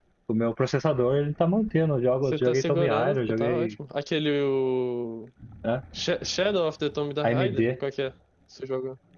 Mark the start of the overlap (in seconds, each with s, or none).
2.2 s